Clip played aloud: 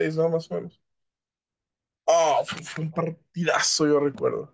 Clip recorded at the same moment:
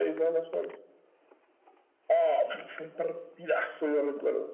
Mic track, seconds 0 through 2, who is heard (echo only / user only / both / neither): echo only